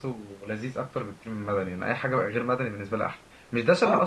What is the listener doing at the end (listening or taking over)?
listening